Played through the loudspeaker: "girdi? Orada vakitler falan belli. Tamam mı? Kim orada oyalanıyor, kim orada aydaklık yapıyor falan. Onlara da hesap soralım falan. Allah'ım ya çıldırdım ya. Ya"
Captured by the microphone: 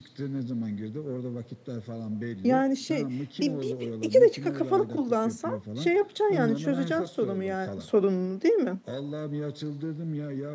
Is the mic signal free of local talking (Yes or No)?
No